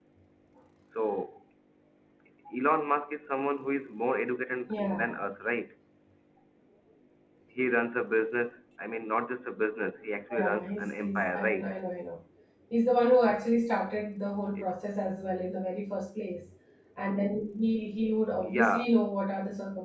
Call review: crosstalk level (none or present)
present